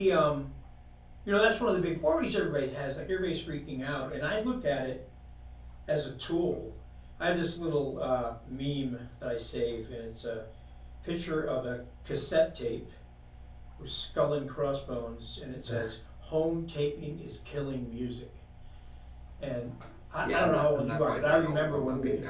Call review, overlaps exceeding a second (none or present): present